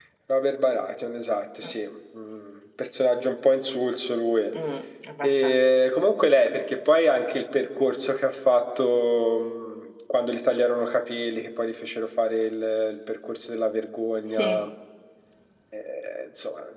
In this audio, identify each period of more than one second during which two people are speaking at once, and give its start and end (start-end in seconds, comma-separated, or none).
none